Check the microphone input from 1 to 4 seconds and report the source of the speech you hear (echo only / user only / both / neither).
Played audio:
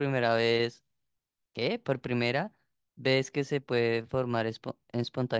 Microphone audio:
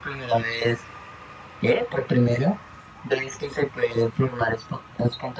echo only